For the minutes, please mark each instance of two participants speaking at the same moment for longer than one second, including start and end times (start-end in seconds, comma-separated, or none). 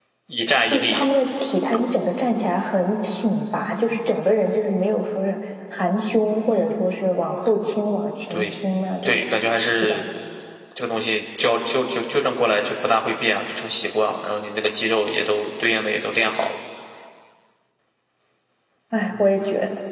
none